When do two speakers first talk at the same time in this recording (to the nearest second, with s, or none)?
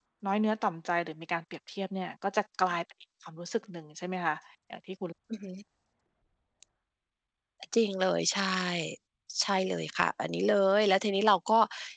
none